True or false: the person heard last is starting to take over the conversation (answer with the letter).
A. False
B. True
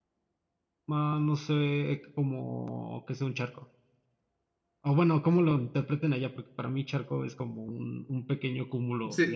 B